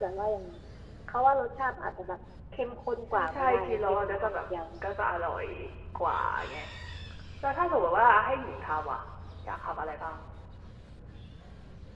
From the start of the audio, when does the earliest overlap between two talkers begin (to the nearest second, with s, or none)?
3 s